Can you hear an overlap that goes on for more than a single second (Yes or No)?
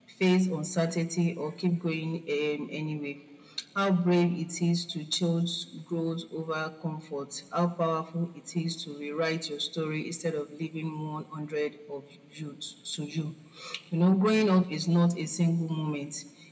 No